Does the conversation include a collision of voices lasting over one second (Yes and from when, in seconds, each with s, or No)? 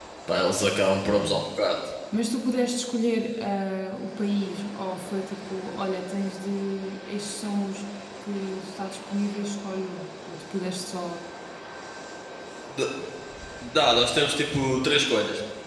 No